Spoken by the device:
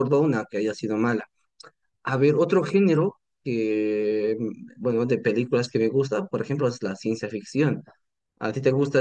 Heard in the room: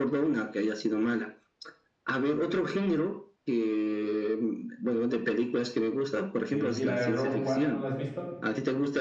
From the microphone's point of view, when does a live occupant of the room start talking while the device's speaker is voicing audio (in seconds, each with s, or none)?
6.5 s